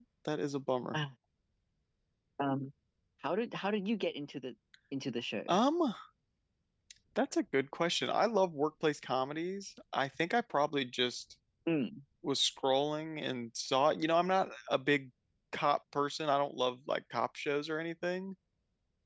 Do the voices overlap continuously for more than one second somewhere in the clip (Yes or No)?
No